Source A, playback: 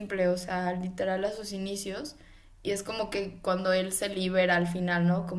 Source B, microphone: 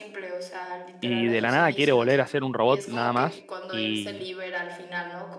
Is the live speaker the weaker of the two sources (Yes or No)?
No